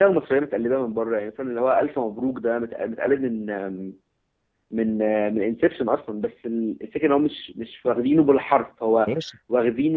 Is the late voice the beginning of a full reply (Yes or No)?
No